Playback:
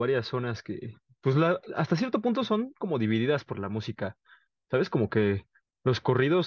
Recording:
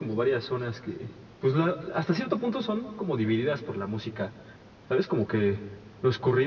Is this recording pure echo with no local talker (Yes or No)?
Yes